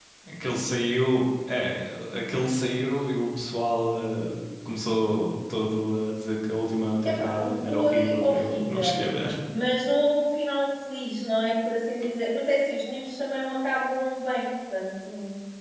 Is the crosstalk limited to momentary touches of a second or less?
No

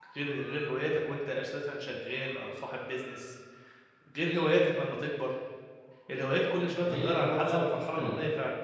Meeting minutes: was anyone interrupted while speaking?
Yes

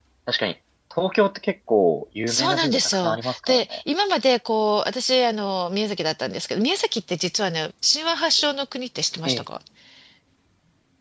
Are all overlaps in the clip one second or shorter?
No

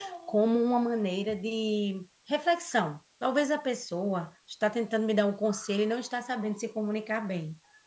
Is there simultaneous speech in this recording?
No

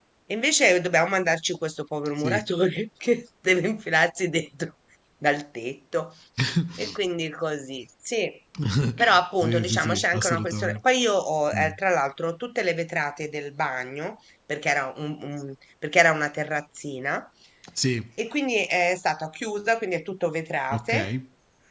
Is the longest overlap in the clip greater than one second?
Yes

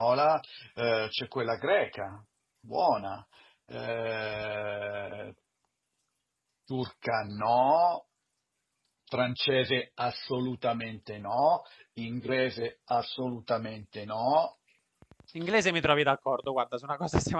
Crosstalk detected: No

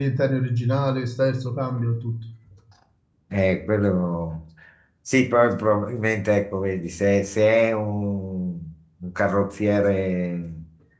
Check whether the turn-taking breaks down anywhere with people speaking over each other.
No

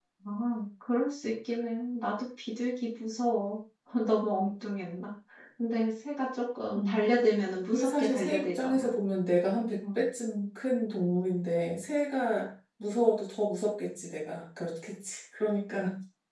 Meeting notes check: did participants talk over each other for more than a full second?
Yes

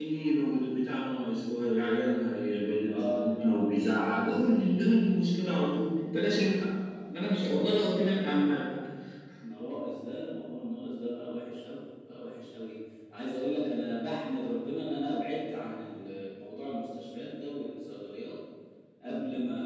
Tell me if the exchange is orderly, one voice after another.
No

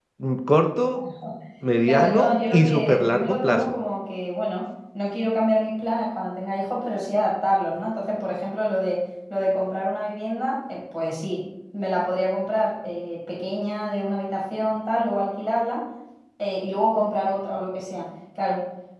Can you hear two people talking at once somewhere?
Yes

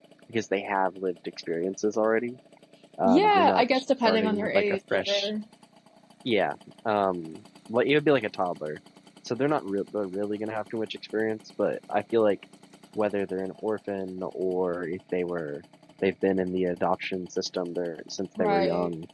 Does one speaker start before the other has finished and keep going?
Yes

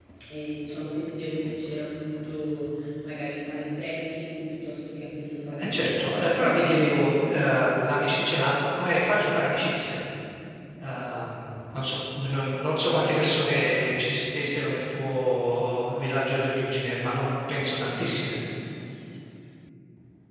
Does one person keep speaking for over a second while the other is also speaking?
Yes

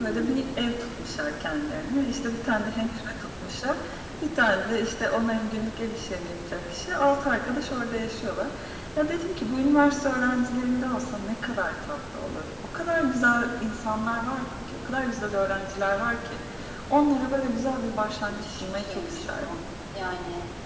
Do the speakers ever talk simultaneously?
Yes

